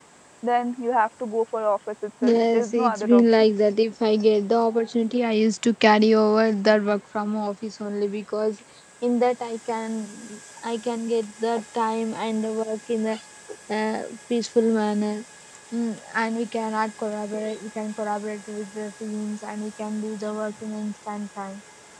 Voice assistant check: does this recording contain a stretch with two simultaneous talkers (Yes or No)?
Yes